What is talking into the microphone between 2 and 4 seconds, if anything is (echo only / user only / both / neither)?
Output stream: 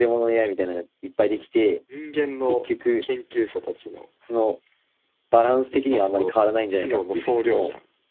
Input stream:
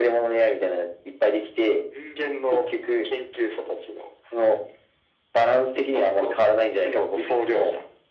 echo only